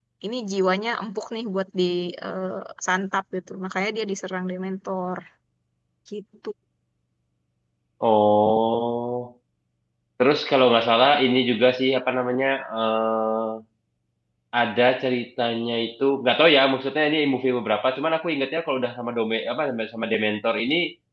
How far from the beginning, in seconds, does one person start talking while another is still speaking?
none

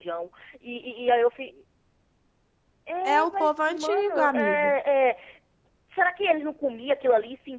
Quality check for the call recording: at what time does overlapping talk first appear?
3.0 s

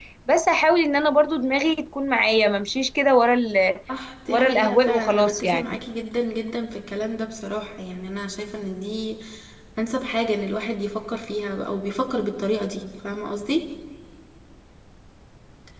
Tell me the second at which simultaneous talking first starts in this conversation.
4.3 s

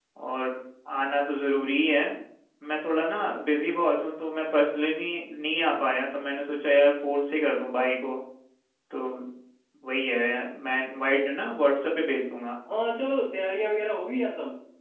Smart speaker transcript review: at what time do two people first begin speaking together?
none

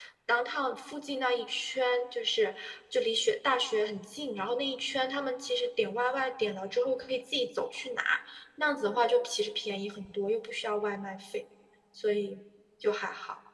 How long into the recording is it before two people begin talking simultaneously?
none

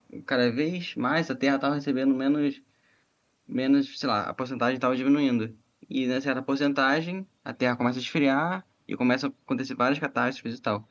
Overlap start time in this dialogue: none

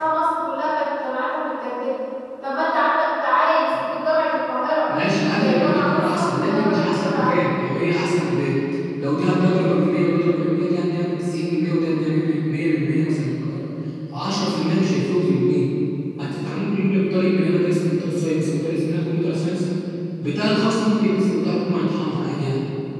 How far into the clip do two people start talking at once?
5.3 s

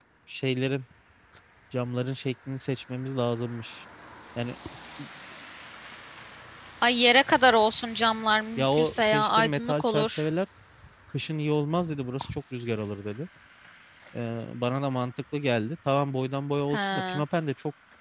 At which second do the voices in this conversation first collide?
8.6 s

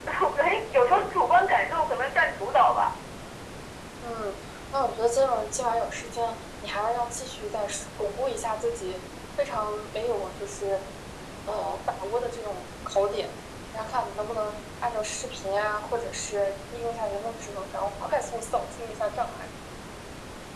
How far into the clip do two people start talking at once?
none

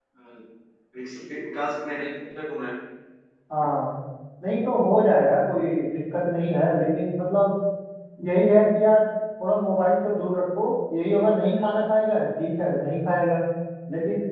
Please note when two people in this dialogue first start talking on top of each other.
none

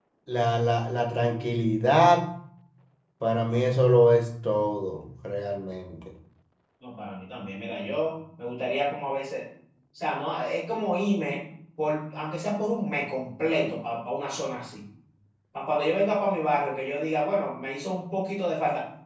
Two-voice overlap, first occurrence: none

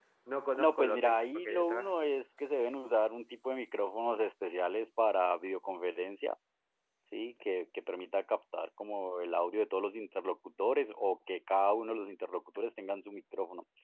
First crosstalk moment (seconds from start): 0.6 s

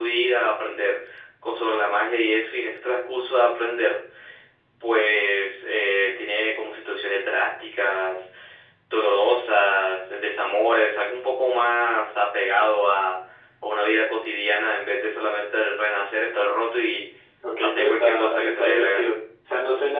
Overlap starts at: 17.6 s

